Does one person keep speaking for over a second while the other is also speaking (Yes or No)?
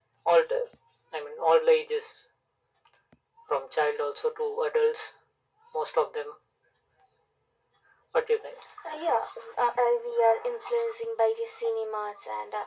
No